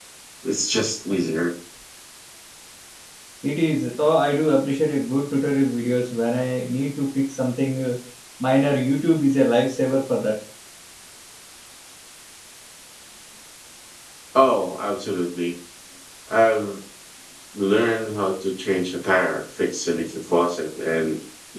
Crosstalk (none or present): none